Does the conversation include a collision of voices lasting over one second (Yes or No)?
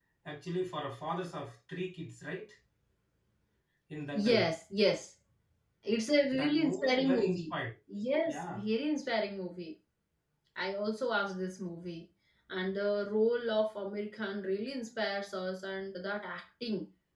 Yes